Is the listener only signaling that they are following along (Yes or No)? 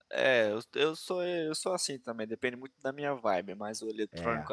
Yes